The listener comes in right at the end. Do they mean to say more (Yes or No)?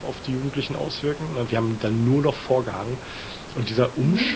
No